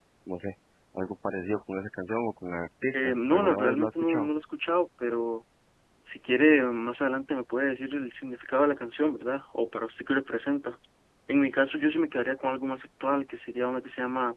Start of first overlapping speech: 2.9 s

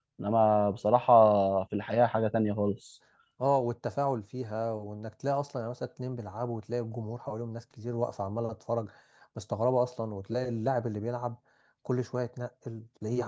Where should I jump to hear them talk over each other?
none

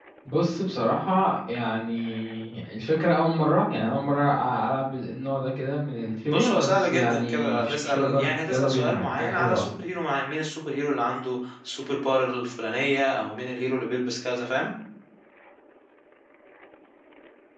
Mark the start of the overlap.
6.2 s

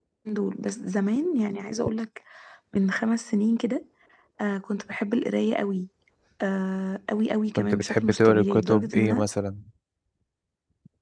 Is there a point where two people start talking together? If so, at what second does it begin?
7.6 s

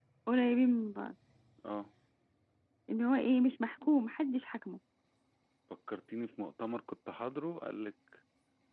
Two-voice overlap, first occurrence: none

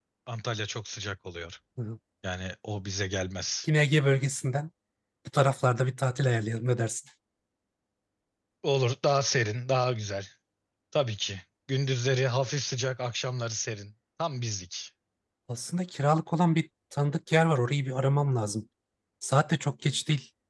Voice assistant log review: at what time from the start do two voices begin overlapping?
none

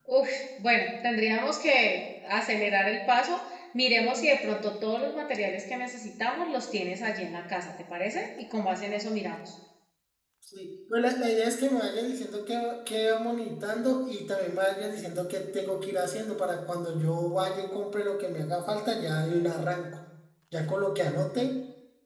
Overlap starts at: none

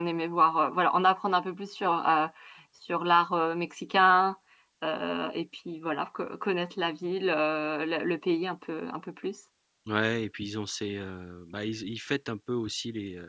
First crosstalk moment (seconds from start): none

